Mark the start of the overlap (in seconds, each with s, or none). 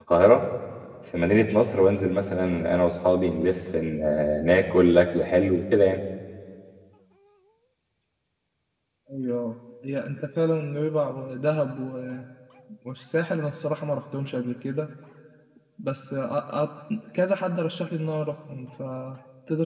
none